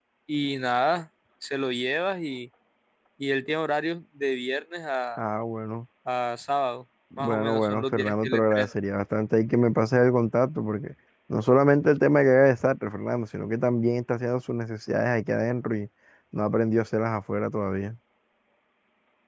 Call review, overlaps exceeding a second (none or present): present